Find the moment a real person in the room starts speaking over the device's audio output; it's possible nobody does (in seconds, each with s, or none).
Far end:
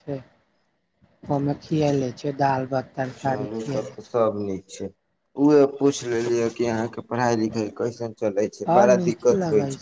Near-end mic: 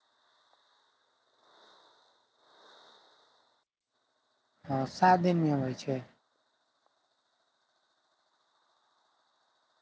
4.7 s